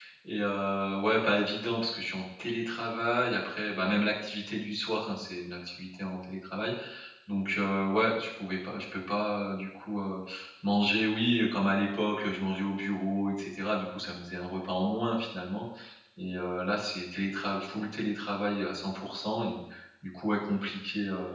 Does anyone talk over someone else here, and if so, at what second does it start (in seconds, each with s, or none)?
none